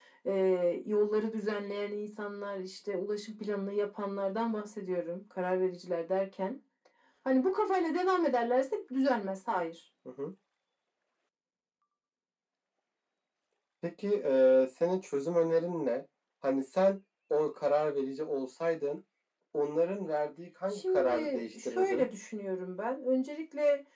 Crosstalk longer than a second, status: present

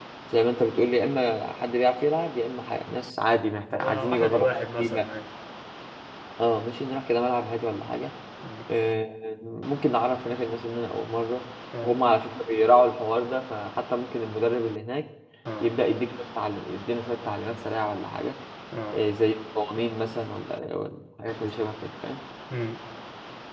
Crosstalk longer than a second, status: present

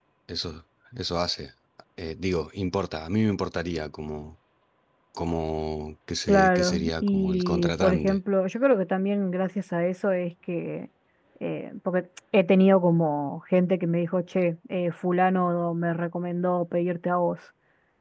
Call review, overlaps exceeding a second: present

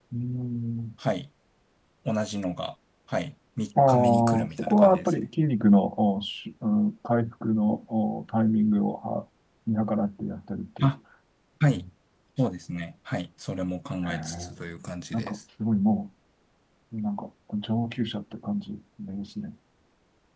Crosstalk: present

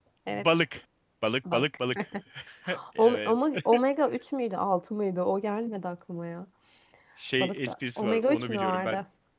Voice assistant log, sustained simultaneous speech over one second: present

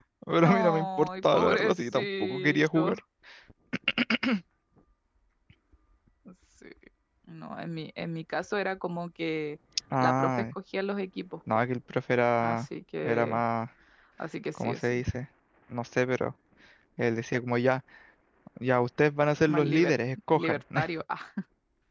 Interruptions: present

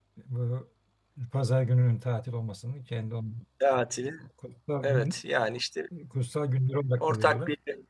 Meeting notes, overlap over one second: none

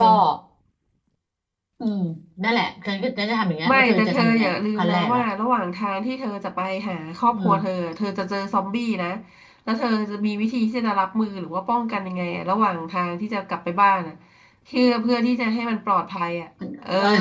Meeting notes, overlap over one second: present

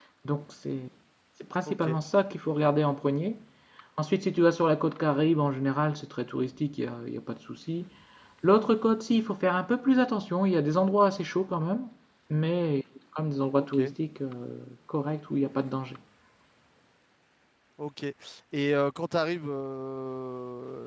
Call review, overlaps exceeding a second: none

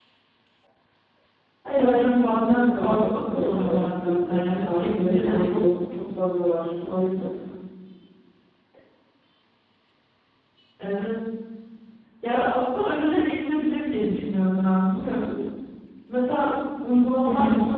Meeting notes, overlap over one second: present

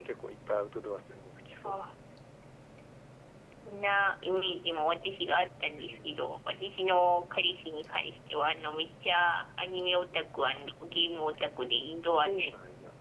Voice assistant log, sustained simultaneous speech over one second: none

